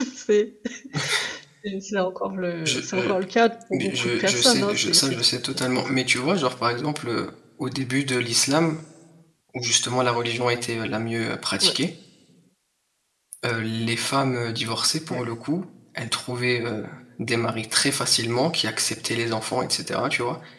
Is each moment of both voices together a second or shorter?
No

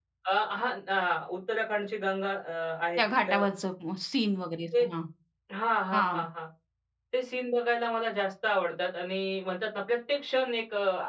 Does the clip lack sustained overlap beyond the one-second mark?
Yes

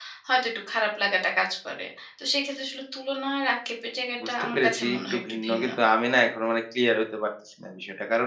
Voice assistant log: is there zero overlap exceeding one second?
No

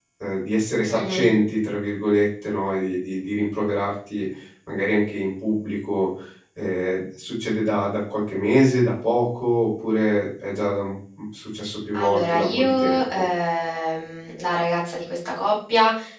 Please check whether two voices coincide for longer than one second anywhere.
Yes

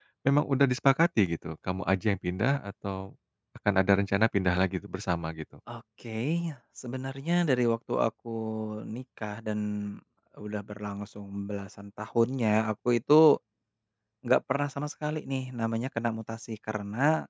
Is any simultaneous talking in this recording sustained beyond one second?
No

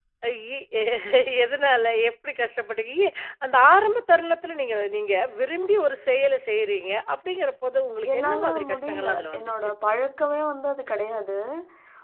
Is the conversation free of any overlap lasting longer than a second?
No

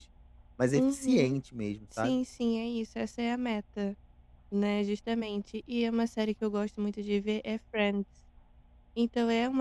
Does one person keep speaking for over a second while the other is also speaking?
No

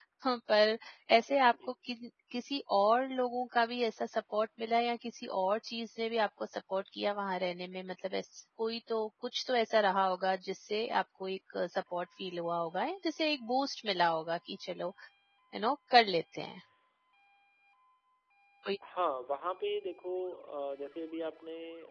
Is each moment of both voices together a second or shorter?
Yes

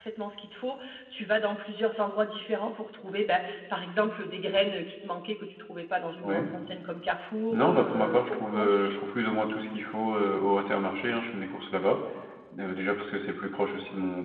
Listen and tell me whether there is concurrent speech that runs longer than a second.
Yes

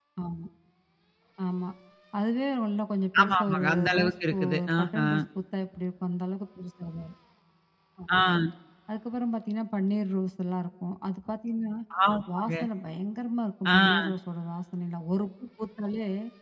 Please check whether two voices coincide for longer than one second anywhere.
Yes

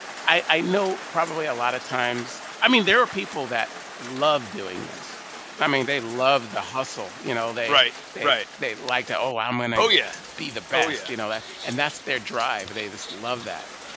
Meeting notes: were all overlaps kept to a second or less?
Yes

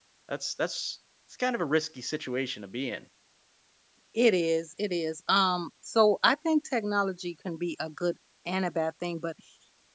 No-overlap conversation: Yes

